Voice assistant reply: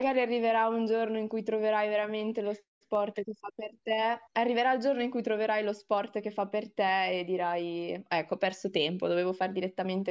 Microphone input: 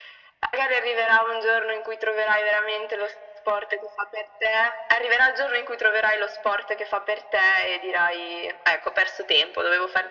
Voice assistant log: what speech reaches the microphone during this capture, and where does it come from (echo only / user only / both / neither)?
echo only